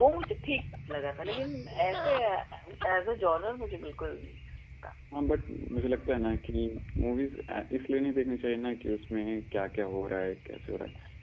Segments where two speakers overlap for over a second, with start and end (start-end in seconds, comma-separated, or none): none